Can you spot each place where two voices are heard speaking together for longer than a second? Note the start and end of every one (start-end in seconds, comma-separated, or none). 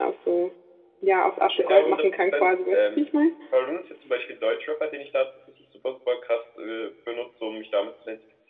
1.5-3.1